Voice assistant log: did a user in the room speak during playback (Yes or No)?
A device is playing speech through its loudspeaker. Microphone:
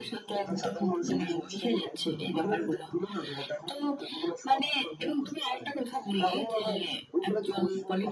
No